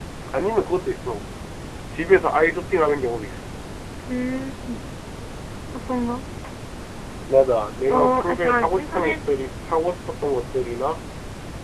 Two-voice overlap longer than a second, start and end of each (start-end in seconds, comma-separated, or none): 7.9-9.2